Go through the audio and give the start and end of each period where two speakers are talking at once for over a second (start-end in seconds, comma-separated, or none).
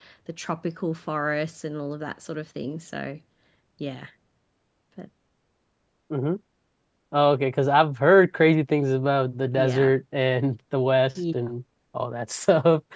none